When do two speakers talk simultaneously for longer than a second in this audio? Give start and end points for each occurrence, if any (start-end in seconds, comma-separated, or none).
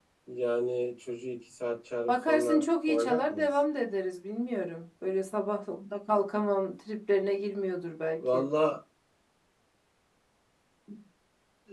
2.1-3.5